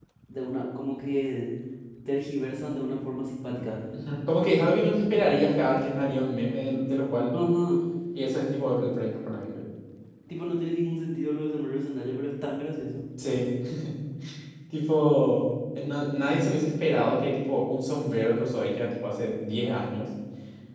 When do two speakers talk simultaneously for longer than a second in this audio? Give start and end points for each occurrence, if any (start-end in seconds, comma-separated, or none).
none